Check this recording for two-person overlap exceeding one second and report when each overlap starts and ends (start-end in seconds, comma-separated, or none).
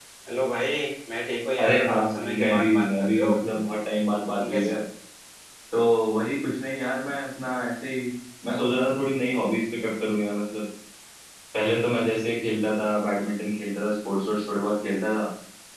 1.6-3.3